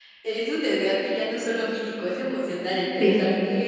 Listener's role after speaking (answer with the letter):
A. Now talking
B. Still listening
B